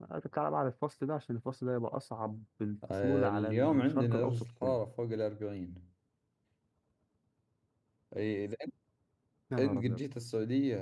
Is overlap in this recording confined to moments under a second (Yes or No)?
No